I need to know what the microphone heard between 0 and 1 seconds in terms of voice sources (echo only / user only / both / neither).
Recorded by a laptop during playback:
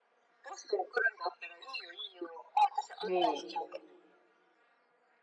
echo only